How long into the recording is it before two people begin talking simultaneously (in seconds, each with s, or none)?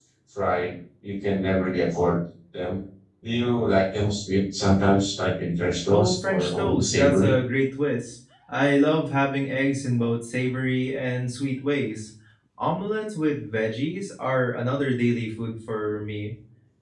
5.9 s